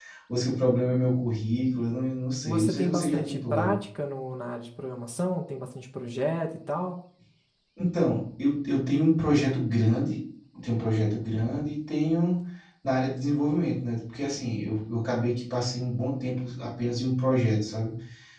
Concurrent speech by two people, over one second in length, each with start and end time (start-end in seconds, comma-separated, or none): 2.4-3.8